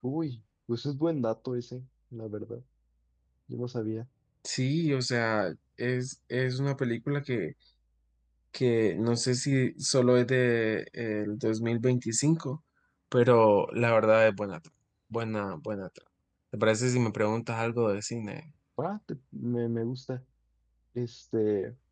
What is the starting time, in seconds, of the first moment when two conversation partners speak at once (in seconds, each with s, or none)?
none